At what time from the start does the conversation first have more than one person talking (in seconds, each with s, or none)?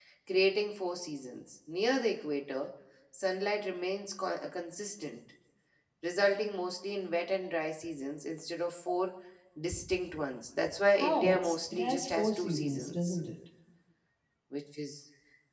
11.0 s